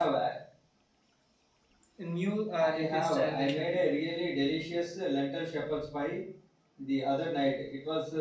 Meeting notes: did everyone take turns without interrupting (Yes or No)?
No